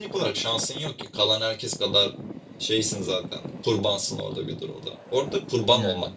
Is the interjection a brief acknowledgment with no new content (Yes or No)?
Yes